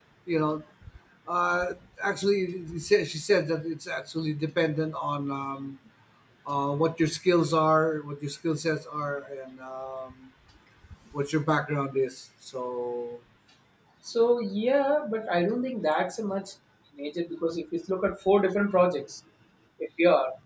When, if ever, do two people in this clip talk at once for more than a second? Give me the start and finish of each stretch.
none

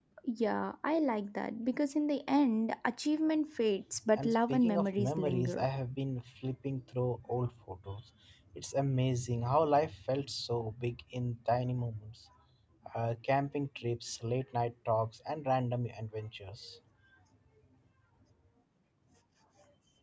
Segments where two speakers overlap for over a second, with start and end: 4.2-5.6

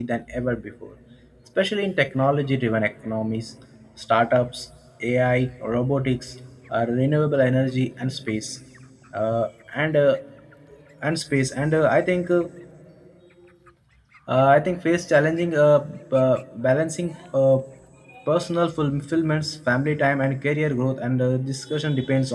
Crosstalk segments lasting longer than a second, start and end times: none

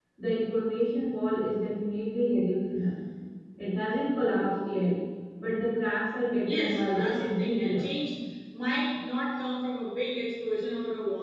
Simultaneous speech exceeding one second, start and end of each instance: 6.4-7.9

